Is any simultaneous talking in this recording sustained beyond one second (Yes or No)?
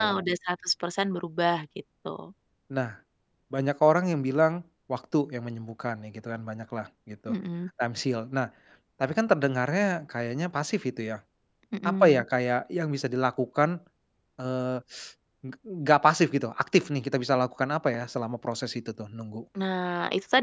No